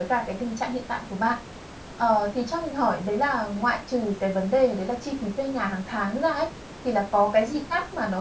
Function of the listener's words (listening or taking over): listening